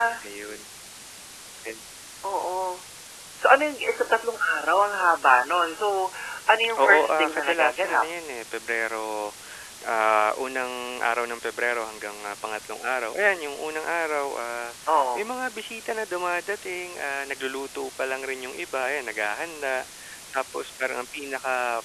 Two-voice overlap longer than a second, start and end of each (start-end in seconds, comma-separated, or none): 6.8-8.1